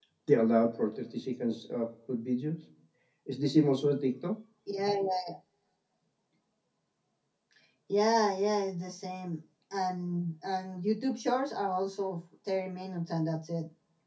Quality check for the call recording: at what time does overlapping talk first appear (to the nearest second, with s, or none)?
none